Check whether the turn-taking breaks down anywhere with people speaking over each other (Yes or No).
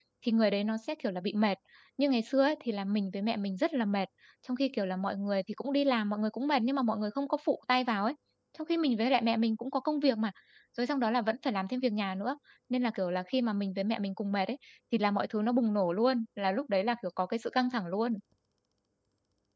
No